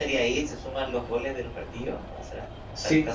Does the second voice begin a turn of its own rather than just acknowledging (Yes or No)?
Yes